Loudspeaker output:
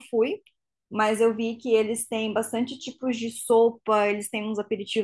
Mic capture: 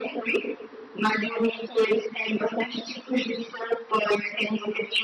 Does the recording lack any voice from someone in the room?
Yes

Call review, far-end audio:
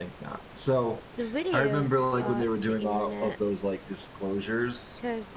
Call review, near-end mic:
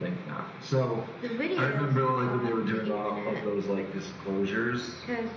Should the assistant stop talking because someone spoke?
No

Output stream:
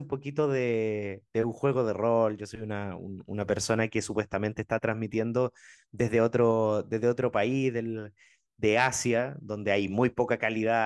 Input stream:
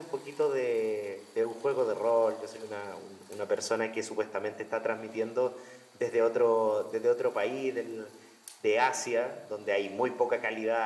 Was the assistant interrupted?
No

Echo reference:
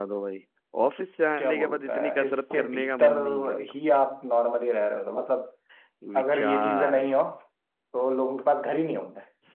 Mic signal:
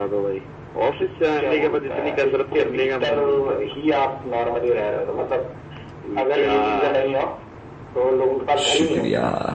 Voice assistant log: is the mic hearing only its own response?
No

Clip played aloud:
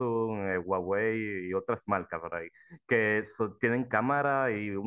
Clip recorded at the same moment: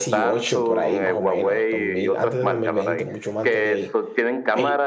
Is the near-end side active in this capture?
Yes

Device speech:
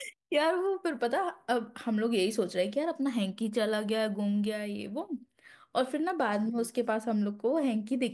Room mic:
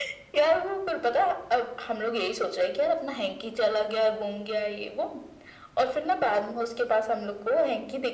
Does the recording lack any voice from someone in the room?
Yes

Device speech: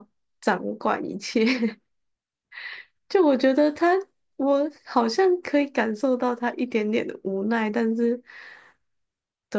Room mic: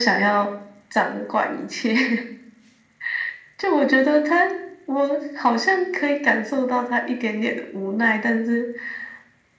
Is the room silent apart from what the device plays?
Yes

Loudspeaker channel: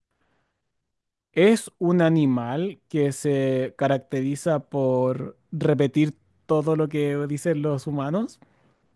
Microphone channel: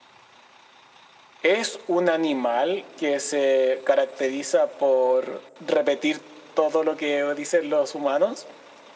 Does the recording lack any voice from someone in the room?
Yes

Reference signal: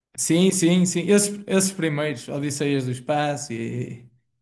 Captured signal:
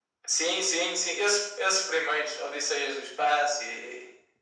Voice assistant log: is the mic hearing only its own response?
Yes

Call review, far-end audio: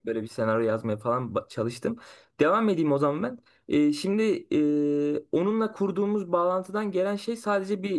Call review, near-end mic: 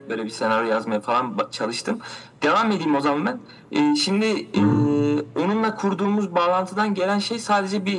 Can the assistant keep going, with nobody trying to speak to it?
No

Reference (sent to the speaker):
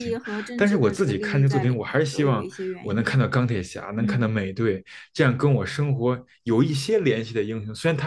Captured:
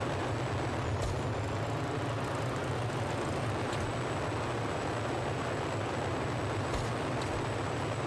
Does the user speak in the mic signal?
No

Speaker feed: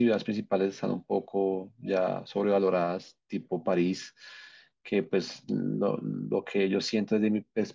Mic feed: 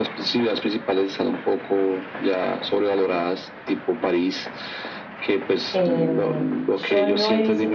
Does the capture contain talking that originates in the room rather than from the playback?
Yes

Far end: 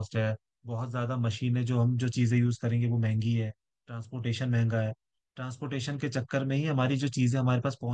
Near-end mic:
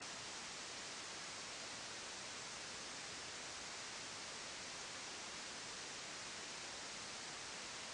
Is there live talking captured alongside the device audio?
No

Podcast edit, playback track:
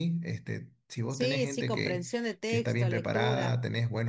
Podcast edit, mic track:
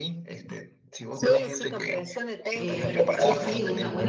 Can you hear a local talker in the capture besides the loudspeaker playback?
Yes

